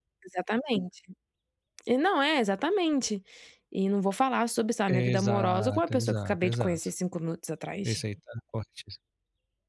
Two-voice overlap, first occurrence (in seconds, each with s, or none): 4.9 s